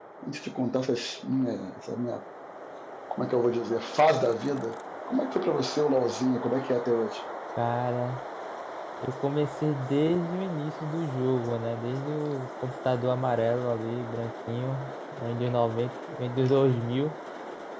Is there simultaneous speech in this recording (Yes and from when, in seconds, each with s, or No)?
No